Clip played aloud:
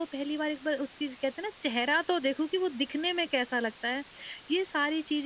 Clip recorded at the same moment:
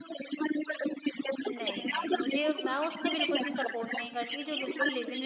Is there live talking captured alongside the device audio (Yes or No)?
Yes